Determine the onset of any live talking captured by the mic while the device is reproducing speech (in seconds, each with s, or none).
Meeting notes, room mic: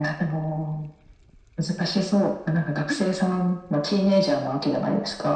1.9 s